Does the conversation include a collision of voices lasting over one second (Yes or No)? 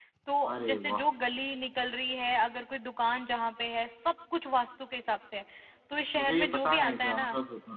Yes